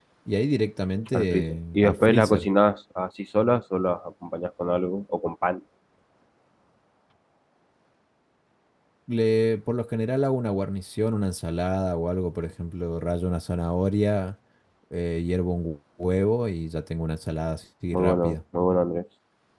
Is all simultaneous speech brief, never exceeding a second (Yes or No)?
No